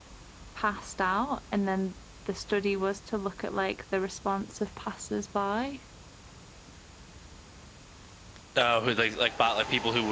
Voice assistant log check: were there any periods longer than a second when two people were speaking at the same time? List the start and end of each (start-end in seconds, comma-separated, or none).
none